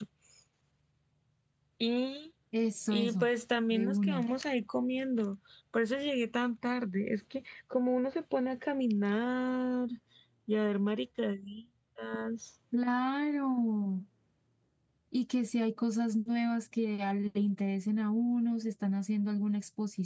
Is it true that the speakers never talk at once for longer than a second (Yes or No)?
Yes